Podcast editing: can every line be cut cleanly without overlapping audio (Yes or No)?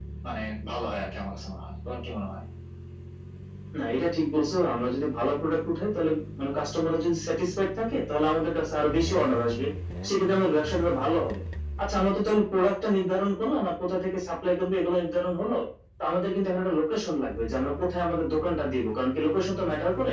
Yes